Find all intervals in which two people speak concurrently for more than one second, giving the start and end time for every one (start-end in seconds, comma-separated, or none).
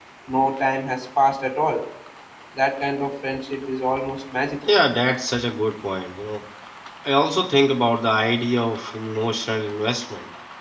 none